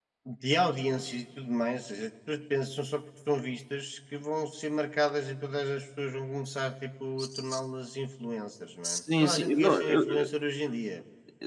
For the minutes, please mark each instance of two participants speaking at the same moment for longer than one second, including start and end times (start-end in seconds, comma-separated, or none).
8.8-10.3